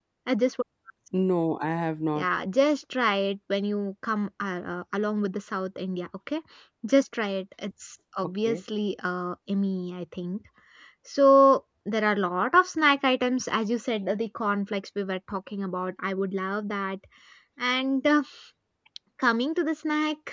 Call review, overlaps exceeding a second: none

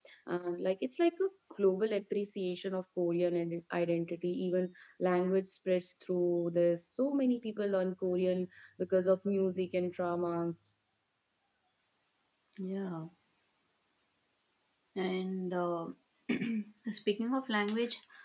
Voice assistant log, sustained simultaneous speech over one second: none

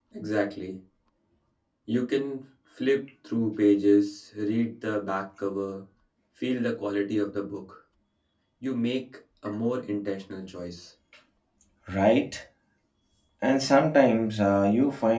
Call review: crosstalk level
none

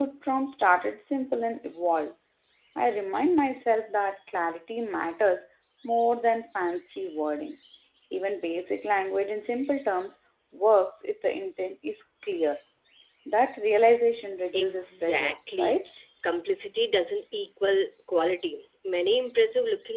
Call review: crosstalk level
present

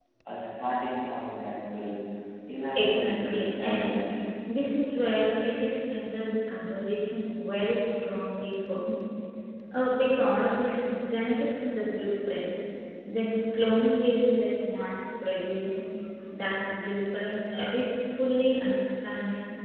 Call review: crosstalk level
present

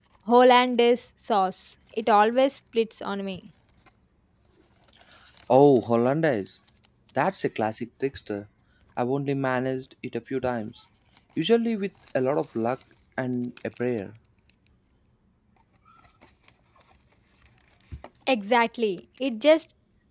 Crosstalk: none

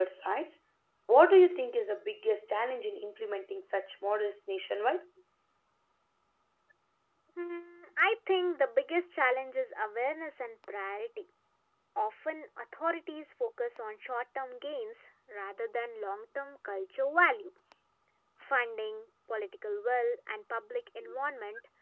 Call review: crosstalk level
none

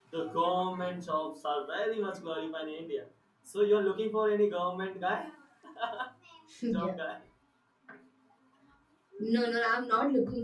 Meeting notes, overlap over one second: none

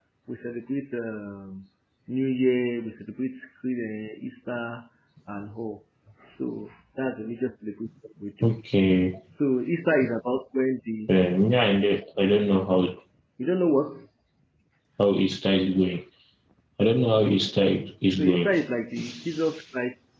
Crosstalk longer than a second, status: none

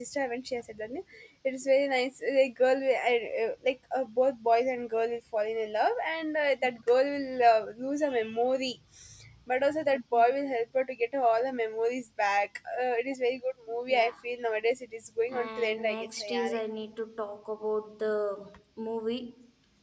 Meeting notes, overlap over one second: present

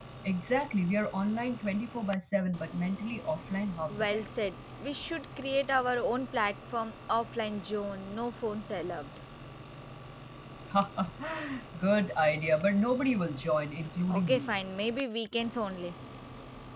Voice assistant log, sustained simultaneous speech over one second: none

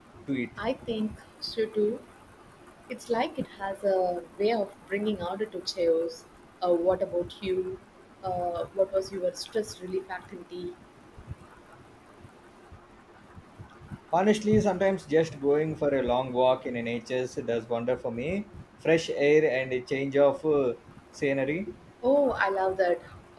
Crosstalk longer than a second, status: none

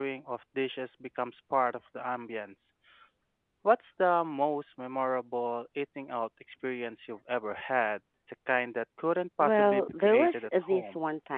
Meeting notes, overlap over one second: present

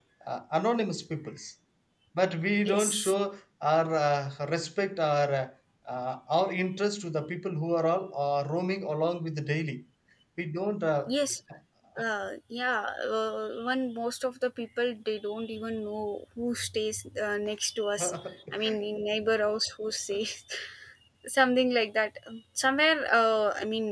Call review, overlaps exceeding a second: none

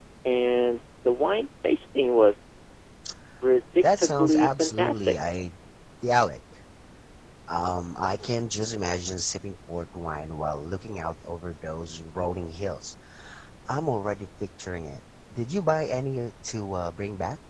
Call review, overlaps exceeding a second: present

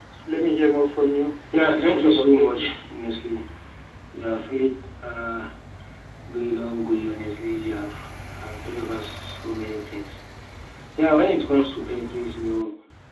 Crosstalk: present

